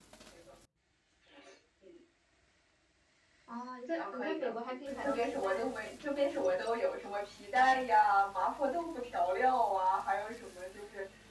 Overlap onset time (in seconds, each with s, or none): 4.0 s